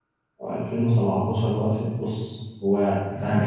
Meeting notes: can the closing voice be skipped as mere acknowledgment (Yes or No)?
Yes